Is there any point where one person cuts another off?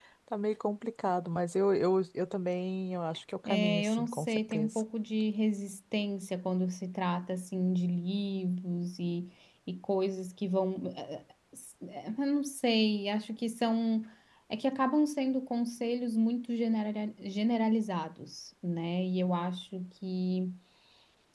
Yes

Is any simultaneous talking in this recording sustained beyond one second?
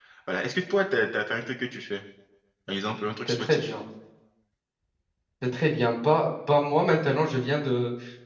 No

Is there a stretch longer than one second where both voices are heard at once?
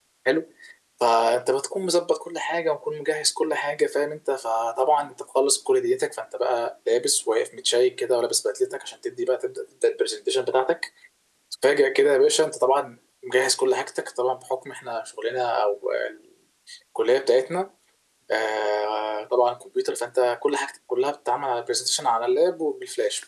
No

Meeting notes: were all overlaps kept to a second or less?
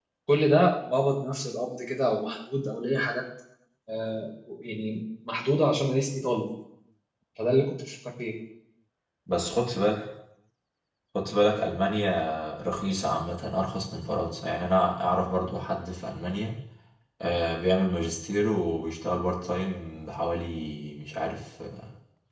Yes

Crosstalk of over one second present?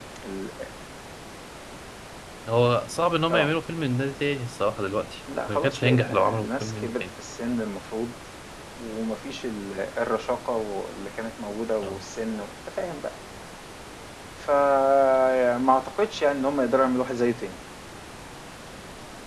Yes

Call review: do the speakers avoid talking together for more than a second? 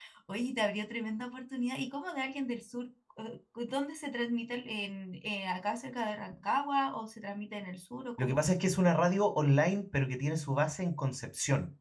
Yes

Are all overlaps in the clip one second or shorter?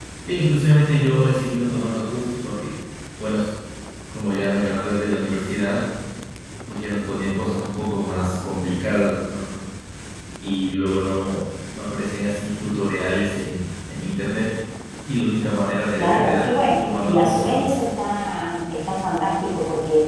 No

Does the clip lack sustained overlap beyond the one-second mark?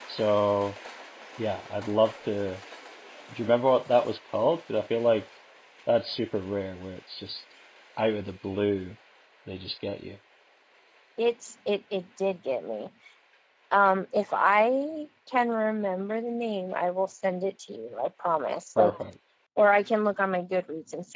Yes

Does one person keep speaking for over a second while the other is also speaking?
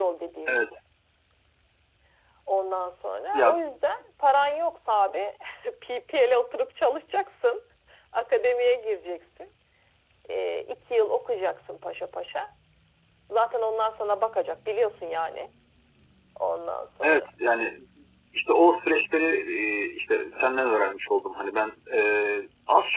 No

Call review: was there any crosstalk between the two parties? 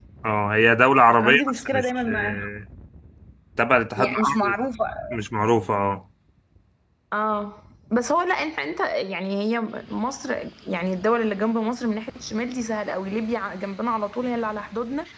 Yes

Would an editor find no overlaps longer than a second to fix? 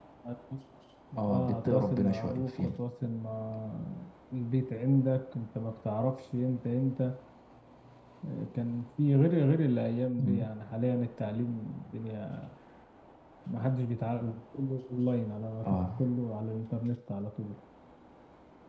No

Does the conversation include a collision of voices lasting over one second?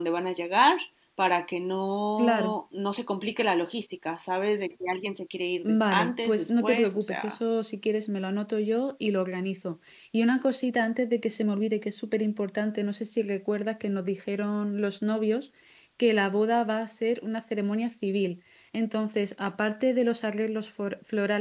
Yes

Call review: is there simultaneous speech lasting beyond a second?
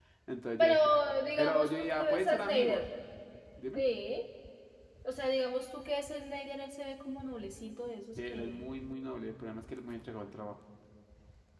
Yes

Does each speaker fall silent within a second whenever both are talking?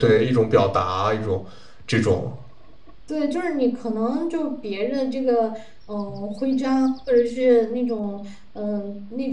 Yes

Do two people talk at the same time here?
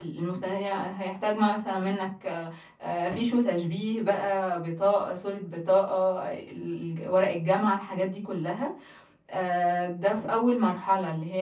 No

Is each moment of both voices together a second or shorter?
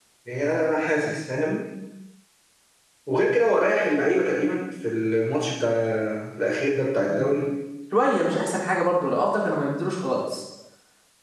Yes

